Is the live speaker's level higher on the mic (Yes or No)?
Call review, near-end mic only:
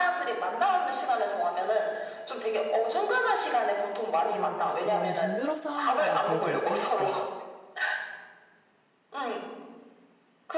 No